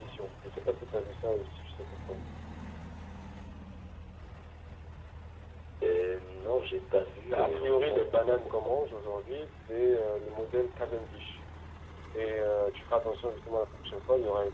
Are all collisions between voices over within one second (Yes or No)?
No